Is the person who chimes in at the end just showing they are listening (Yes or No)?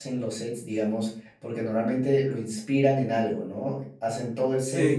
Yes